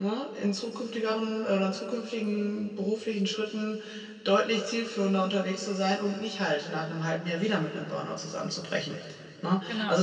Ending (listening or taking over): listening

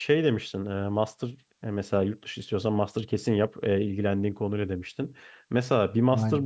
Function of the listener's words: listening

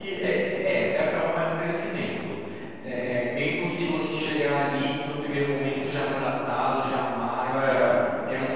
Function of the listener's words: listening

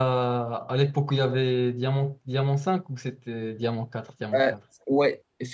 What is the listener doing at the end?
taking over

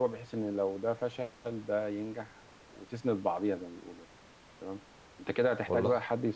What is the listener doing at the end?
listening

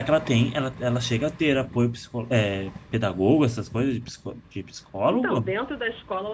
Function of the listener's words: taking over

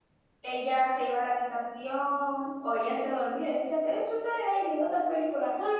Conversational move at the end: taking over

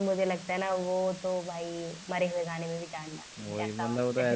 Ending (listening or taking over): taking over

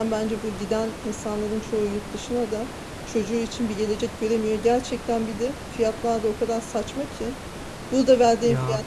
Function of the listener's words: listening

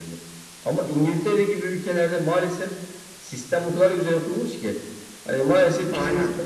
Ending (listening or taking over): listening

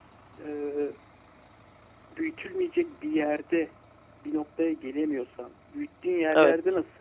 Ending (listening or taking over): listening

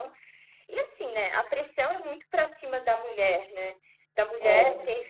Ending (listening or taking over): listening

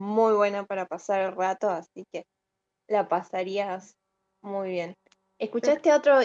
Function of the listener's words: listening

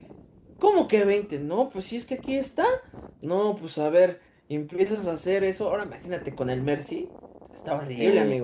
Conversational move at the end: taking over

